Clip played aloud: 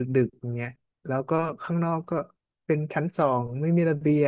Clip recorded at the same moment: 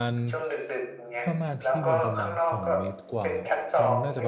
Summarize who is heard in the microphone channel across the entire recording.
both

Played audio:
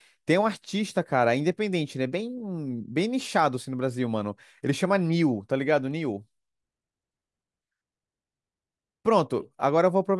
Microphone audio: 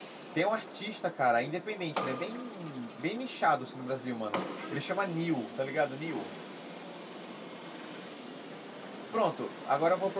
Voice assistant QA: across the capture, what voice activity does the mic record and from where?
echo only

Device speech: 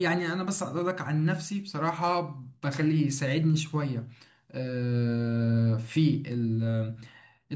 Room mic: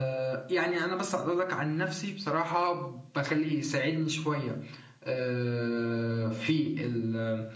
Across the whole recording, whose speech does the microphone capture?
echo only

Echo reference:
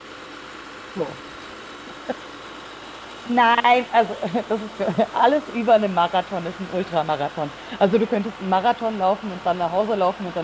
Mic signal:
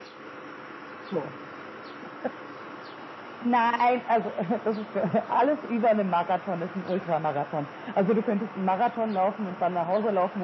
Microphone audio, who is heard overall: echo only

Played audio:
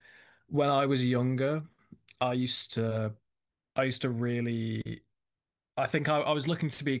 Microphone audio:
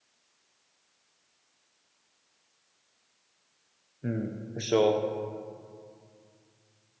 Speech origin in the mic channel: user only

